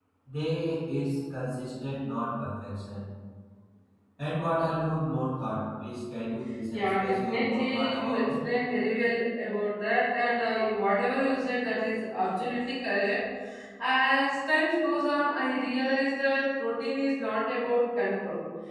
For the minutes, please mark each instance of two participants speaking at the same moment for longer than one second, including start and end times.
6.7-8.3

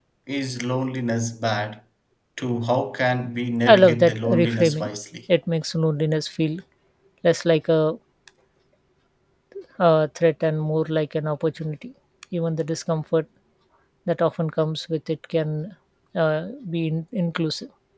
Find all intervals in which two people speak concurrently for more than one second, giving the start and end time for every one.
3.7-4.9

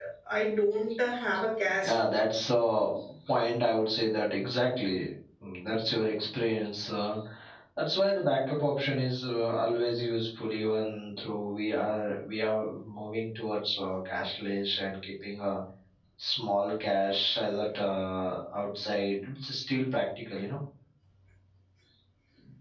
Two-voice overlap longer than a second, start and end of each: none

